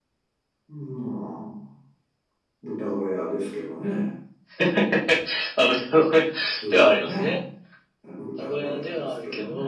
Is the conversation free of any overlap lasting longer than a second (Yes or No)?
No